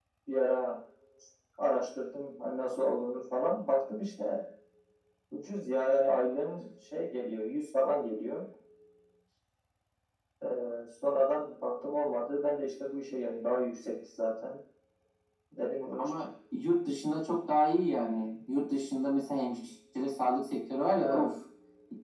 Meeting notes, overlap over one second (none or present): none